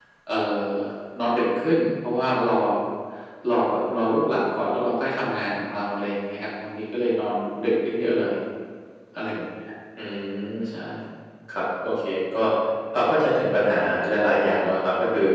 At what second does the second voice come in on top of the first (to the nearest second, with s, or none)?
none